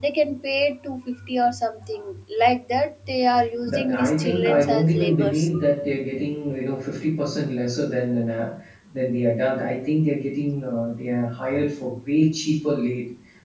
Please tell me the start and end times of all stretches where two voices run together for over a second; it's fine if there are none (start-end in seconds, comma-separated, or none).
3.7-5.5